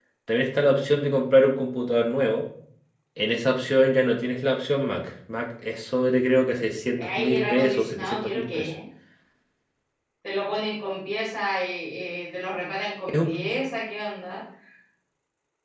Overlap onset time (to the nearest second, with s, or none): 7 s